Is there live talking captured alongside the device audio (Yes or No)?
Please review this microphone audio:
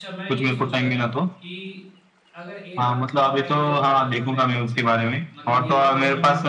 Yes